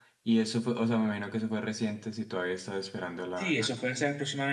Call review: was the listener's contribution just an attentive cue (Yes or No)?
No